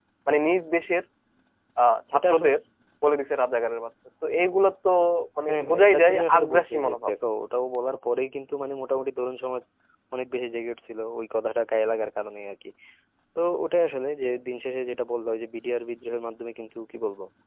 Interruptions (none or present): present